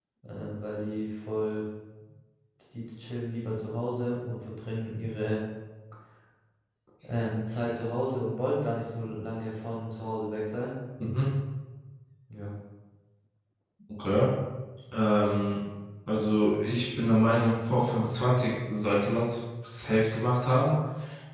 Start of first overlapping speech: none

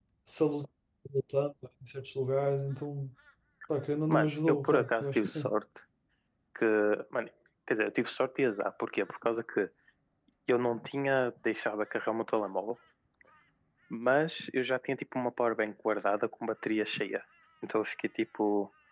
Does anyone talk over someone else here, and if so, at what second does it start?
4.1 s

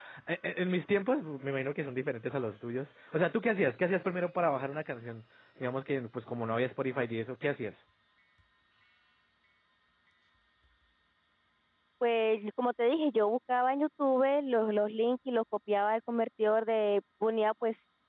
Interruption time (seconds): none

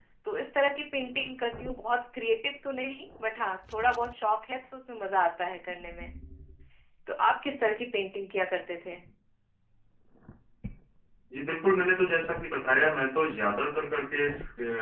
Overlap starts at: none

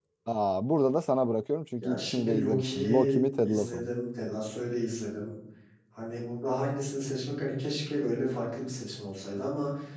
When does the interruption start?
1.8 s

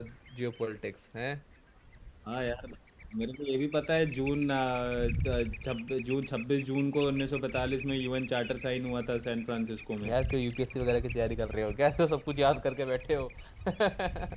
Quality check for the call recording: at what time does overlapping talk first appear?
none

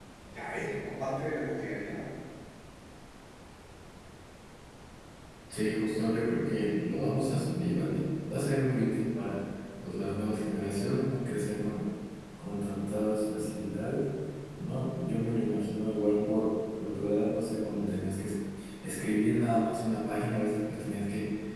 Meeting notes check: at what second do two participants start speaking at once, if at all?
none

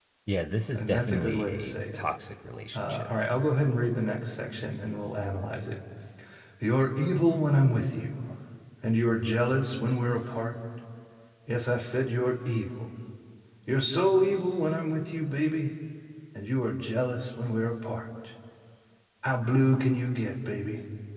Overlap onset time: 0.7 s

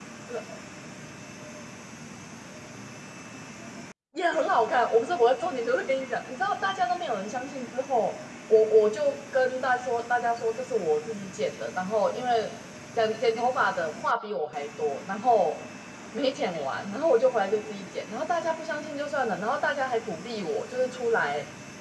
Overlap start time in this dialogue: none

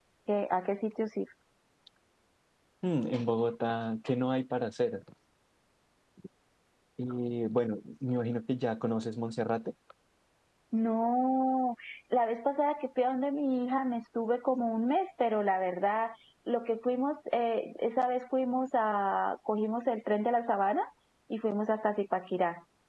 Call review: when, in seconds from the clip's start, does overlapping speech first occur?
none

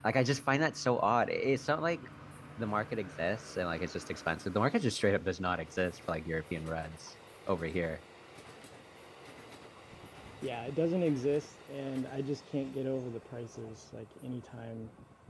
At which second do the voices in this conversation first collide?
none

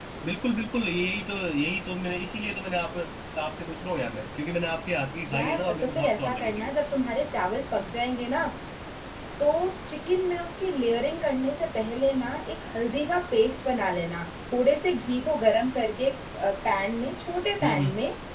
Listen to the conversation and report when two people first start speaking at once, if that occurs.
5.3 s

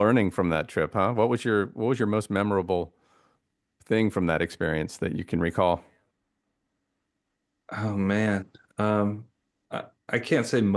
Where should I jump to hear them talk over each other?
none

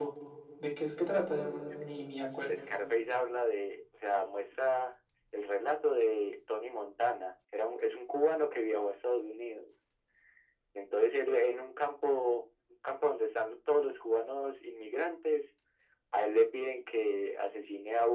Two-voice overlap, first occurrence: none

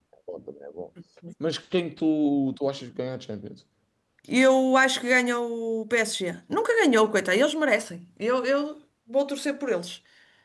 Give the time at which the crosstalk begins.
none

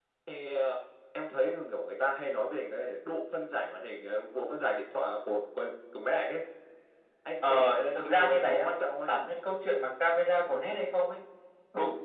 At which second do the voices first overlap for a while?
7.5 s

